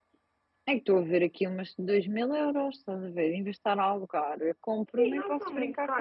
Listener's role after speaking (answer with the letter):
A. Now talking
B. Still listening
A